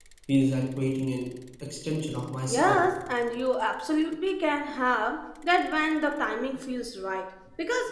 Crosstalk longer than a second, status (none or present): none